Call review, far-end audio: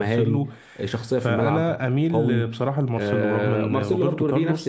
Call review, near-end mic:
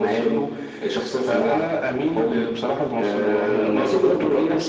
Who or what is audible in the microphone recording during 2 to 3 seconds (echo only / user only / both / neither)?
echo only